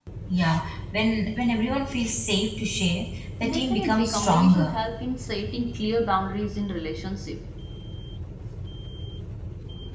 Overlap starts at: 3.4 s

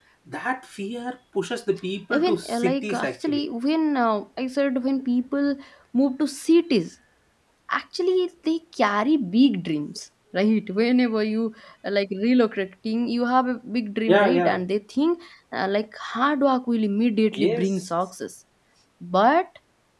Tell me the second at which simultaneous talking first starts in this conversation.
2.1 s

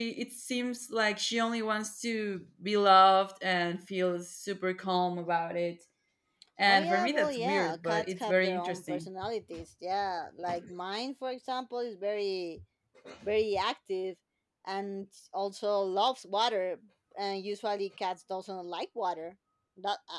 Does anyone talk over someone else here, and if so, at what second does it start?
6.7 s

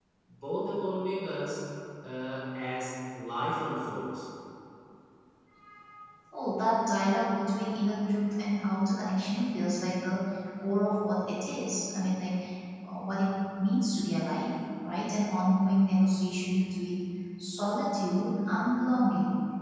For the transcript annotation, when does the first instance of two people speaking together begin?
none

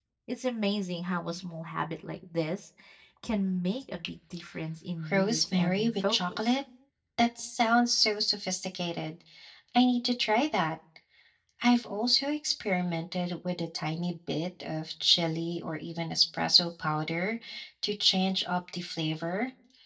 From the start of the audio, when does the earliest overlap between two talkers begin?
5.0 s

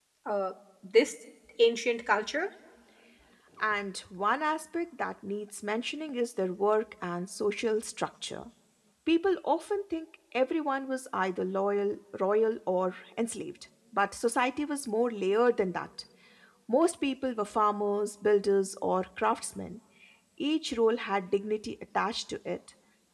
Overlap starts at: none

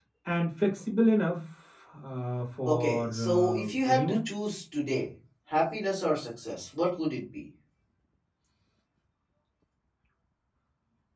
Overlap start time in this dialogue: 2.6 s

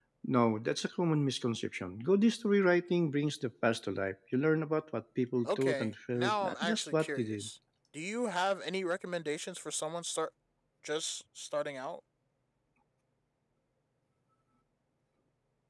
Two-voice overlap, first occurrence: 5.4 s

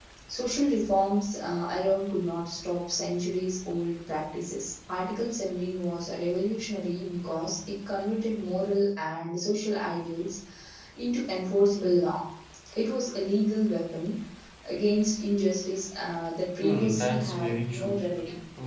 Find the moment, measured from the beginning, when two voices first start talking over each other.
16.6 s

